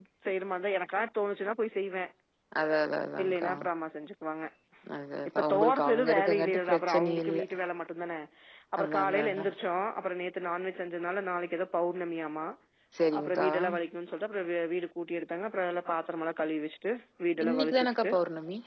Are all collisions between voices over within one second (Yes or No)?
No